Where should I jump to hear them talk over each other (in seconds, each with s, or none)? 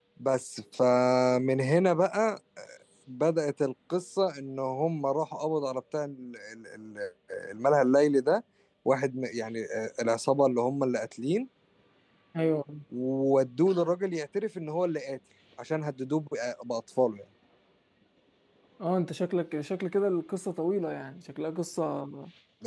none